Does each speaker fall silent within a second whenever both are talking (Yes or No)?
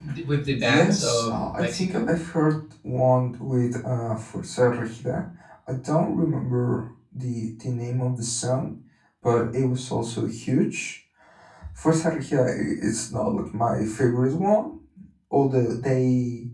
No